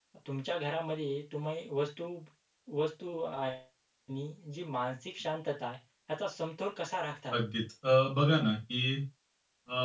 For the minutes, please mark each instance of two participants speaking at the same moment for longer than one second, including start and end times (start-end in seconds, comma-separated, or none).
none